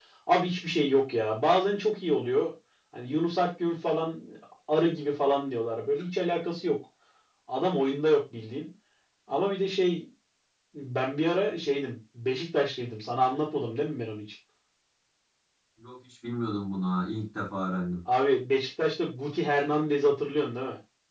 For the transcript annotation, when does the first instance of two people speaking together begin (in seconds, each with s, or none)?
none